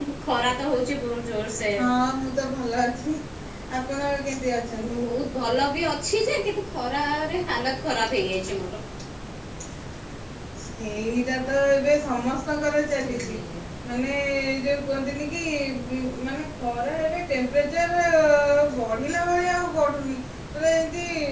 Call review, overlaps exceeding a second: none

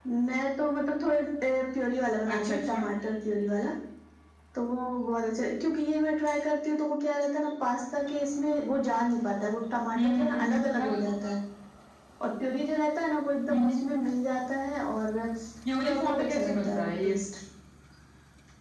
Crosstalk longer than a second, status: present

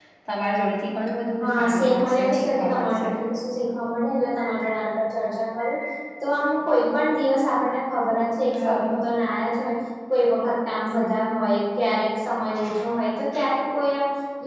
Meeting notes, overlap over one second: present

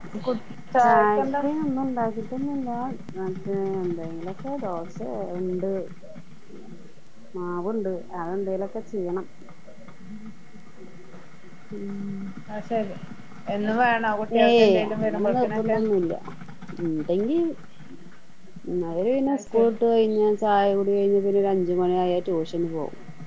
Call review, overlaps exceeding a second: present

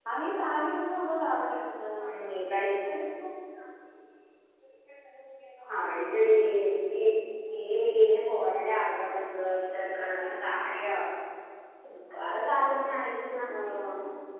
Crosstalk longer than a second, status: none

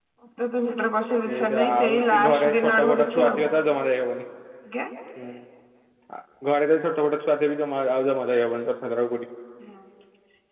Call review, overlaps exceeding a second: present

